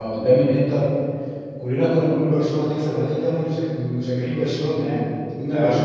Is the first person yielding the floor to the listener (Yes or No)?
No